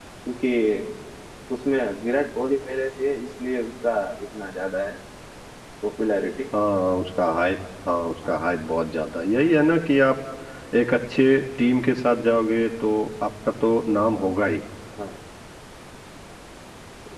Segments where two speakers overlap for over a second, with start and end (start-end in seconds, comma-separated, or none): none